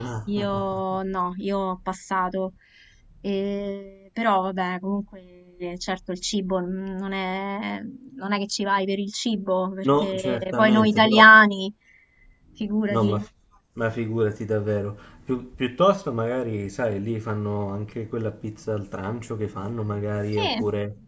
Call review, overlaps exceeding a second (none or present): present